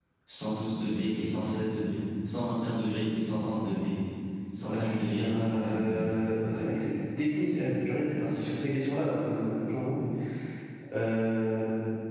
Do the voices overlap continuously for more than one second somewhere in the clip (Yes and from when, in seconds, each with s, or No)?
Yes, from 4.6 s